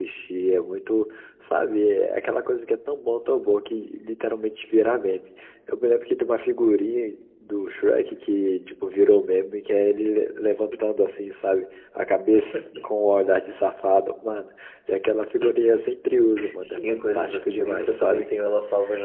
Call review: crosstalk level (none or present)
present